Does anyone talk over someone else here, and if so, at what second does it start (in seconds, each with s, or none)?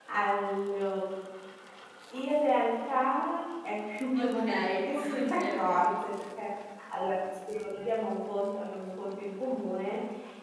4.2 s